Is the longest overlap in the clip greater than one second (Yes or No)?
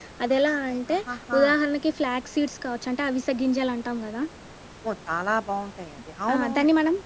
No